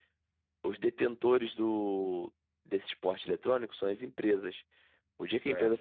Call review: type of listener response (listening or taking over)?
listening